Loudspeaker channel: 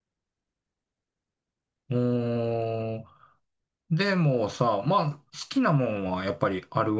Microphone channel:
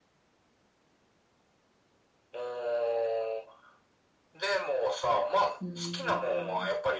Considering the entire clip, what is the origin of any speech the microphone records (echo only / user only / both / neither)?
both